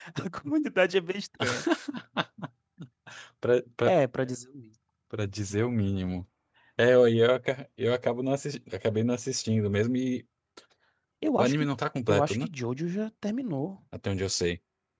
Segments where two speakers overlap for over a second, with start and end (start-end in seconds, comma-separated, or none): none